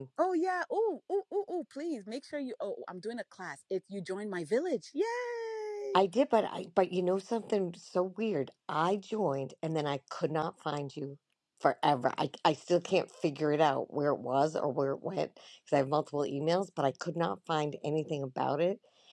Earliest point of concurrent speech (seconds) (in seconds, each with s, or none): none